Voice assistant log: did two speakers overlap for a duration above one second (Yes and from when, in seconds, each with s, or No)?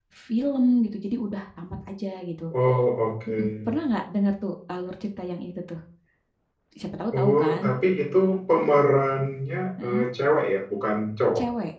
No